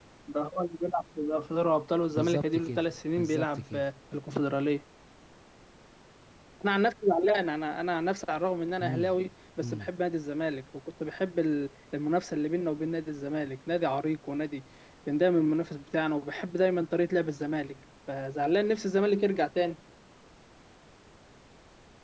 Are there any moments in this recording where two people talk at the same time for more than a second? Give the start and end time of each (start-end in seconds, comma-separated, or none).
2.1-3.8